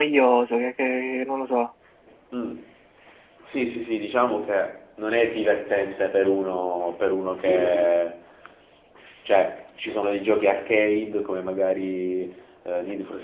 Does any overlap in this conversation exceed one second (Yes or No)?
No